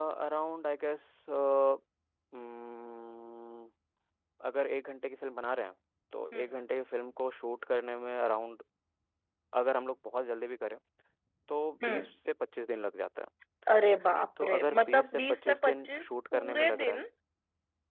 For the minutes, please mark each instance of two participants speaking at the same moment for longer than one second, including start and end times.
14.4-17.1

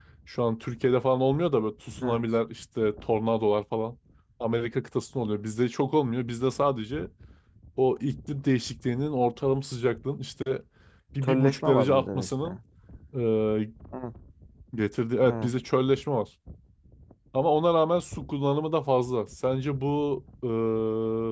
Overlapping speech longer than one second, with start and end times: 11.2-12.5

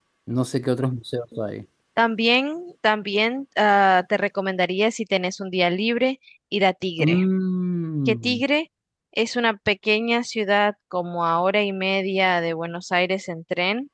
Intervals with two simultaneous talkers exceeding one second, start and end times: none

